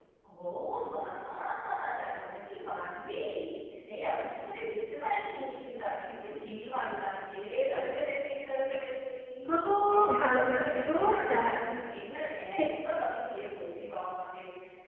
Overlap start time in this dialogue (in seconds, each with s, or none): 9.9 s